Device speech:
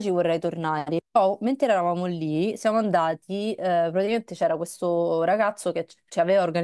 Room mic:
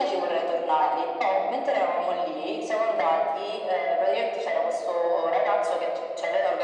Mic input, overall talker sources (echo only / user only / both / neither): echo only